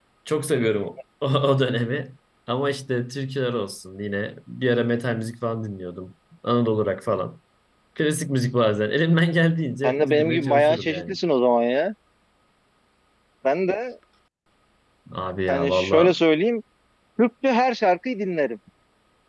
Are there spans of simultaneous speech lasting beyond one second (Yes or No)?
Yes